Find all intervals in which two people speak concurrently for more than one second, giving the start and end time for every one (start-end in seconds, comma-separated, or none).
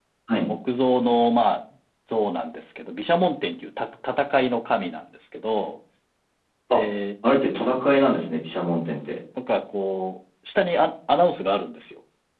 none